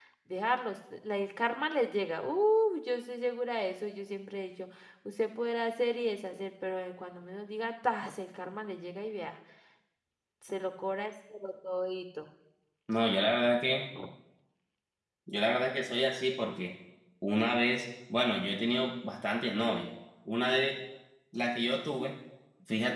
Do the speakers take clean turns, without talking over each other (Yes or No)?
Yes